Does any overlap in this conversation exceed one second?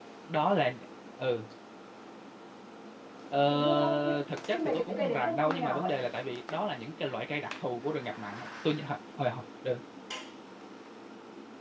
Yes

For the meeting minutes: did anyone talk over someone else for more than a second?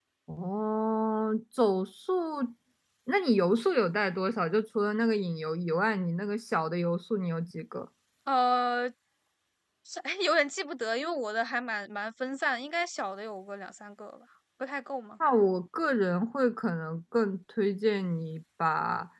No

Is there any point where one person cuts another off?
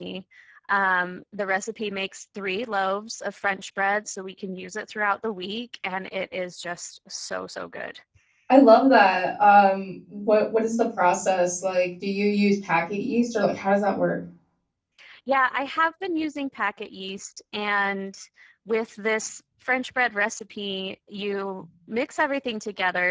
No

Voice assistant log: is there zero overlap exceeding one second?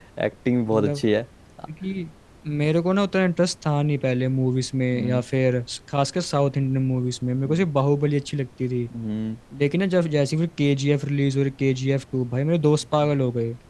Yes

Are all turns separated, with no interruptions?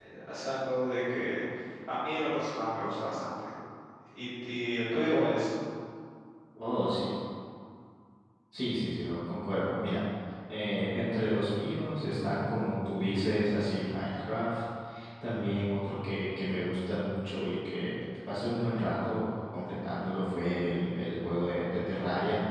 Yes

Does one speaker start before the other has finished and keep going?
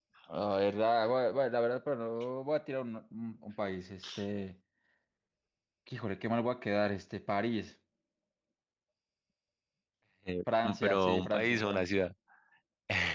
Yes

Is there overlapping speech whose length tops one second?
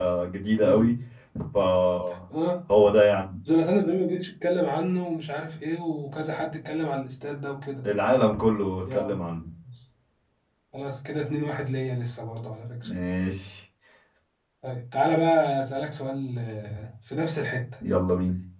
No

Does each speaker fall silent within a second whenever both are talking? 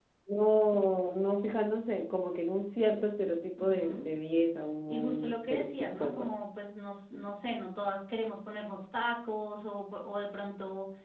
No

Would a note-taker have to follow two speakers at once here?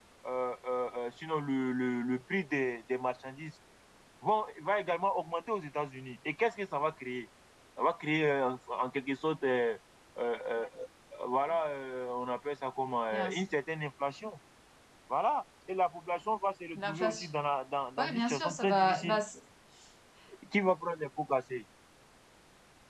Yes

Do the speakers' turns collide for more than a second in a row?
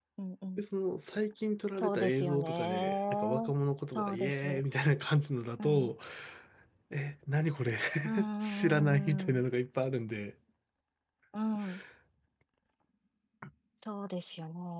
Yes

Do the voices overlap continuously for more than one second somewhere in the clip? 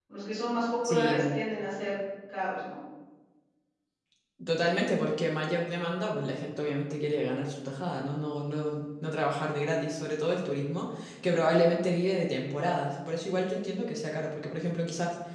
No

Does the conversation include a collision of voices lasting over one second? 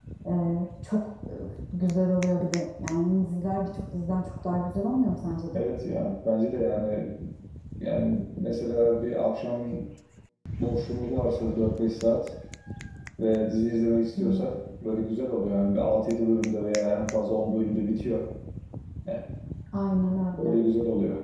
No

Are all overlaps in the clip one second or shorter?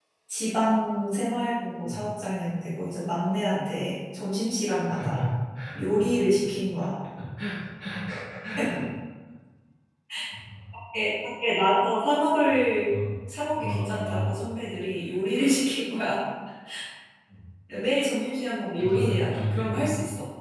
No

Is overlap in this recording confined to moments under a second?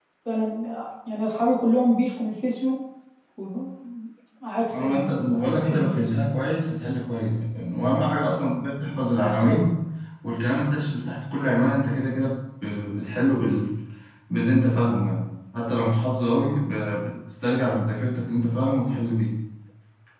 No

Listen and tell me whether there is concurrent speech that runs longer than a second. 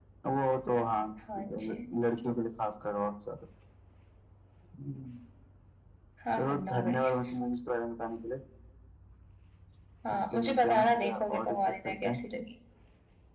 Yes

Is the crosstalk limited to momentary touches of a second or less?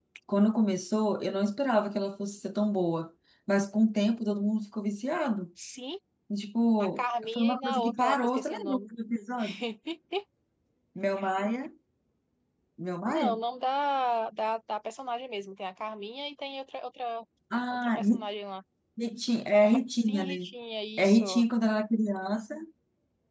No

